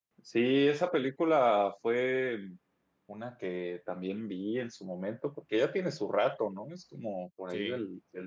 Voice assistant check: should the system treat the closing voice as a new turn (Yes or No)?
No